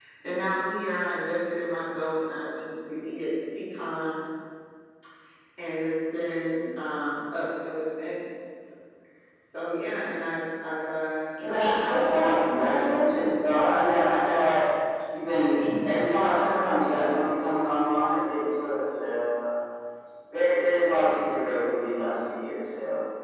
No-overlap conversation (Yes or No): No